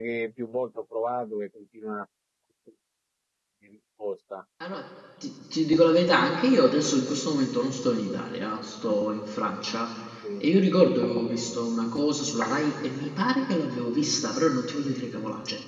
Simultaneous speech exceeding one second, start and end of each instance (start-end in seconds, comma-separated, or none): none